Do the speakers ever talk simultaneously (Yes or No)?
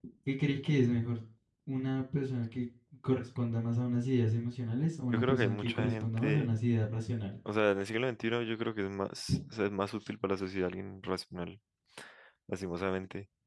Yes